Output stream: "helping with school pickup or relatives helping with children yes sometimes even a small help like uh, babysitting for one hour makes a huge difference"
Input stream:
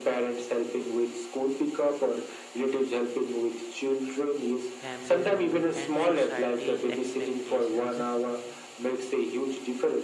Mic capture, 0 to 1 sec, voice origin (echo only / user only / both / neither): echo only